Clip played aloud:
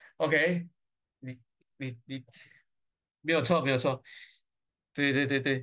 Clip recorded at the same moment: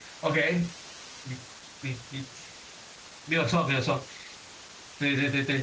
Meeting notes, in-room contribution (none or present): none